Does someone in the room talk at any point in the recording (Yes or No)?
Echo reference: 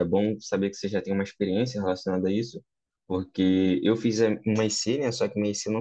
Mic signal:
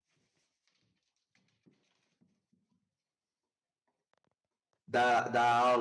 Yes